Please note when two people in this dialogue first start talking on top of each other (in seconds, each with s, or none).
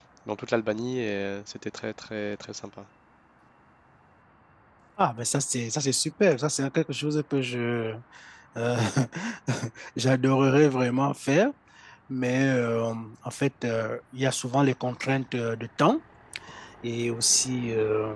none